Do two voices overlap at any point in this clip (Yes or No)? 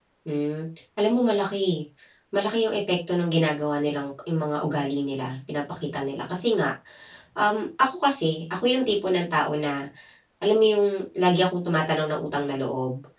No